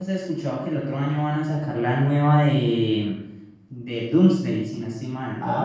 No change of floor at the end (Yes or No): No